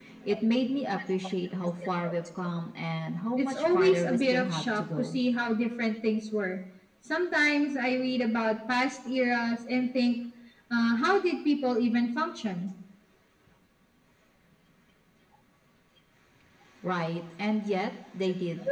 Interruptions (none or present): present